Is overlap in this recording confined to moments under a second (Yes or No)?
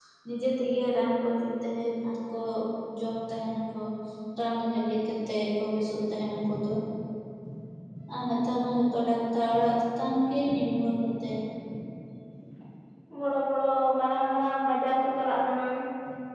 Yes